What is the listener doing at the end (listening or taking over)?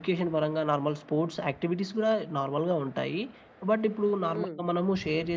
listening